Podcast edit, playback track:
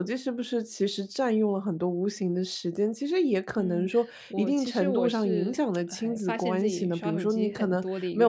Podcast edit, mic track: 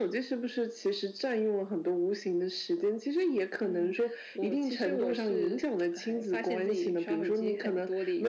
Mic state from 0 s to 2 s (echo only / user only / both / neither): echo only